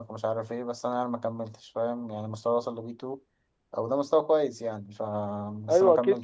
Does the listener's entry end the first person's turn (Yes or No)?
Yes